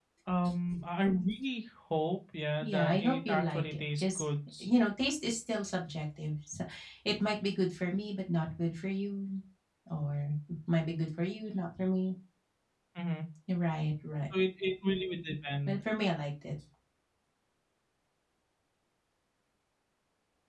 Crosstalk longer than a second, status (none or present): present